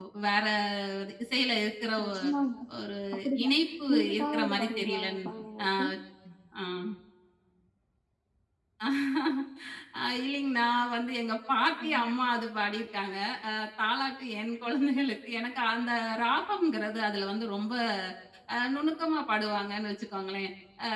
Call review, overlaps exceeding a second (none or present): present